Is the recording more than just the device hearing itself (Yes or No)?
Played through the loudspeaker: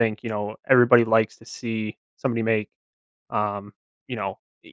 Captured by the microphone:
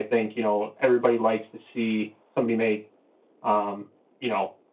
No